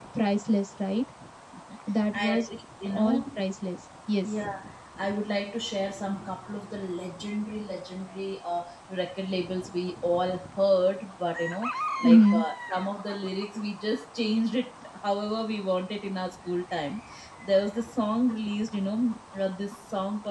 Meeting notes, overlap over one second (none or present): none